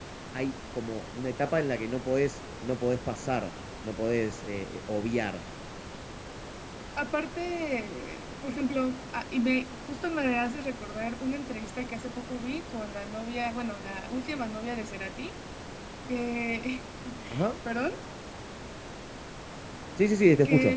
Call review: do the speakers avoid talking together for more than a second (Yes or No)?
Yes